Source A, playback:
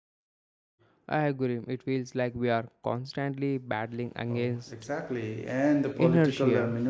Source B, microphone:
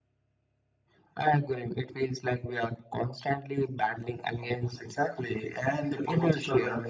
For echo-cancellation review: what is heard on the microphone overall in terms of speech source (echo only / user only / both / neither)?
echo only